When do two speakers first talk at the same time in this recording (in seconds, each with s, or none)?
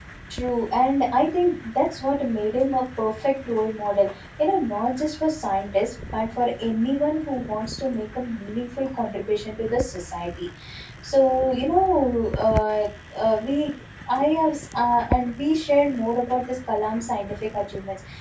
none